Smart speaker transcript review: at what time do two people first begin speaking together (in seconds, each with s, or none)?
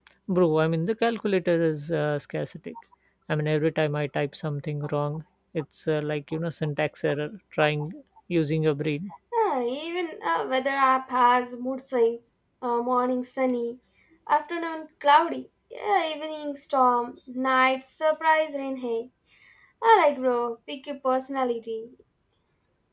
none